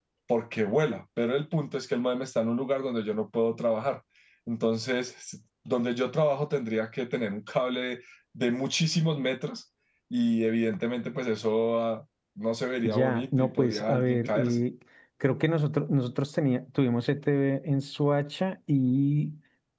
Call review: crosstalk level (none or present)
present